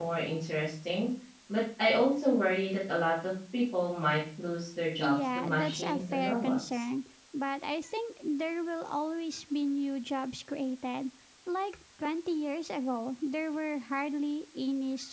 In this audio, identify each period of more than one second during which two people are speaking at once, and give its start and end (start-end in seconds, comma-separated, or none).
5.0-6.8